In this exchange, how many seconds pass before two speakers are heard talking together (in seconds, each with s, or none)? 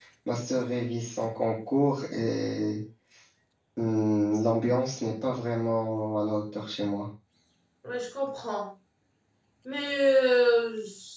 none